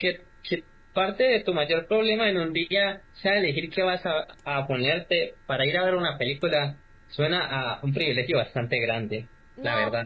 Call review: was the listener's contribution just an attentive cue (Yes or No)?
No